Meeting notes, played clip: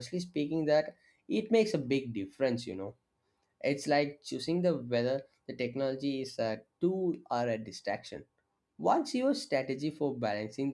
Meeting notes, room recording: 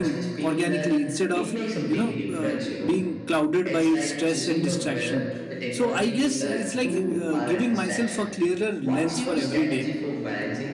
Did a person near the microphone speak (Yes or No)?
Yes